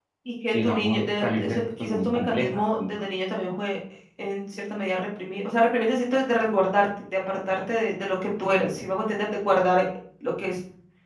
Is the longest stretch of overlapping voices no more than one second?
No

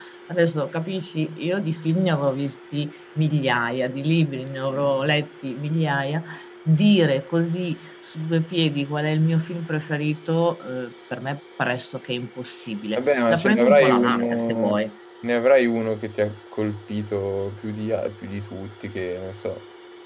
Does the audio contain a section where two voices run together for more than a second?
Yes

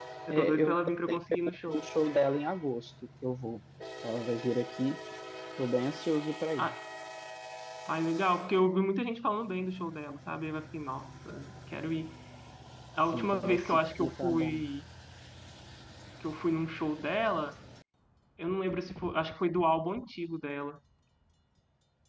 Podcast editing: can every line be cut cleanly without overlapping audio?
No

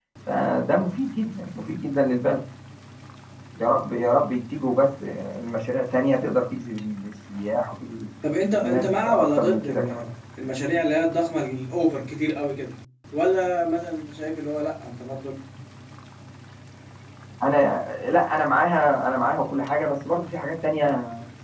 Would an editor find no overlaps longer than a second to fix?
No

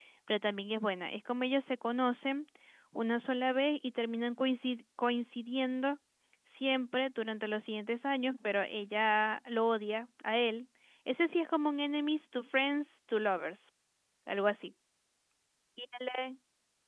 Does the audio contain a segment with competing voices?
No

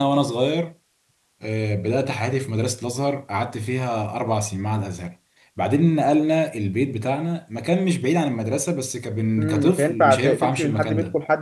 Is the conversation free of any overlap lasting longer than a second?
No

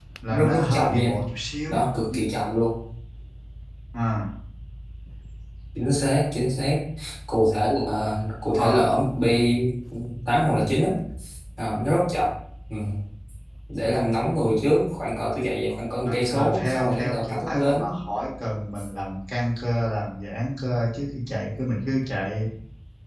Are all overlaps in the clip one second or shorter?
No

